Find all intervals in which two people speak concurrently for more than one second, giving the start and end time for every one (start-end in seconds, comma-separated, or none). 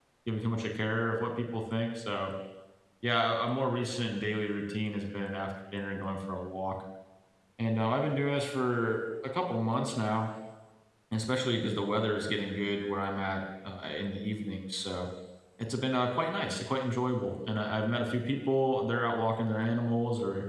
none